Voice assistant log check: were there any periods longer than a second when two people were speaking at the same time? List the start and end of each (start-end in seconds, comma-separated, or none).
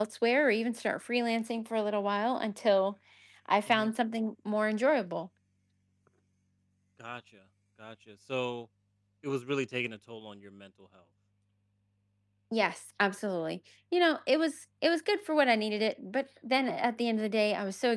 none